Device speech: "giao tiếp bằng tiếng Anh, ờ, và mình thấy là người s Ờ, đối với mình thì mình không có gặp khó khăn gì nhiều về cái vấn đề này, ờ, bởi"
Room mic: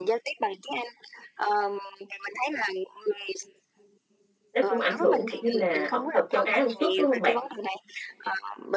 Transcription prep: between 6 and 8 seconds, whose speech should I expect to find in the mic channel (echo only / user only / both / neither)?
both